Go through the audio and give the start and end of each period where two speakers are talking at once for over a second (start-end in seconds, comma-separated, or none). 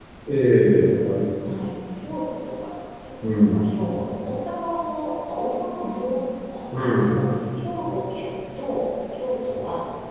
none